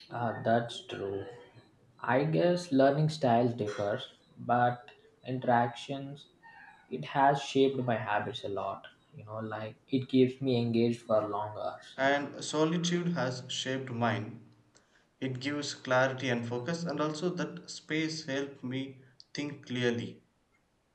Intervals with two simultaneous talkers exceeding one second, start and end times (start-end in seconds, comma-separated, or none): none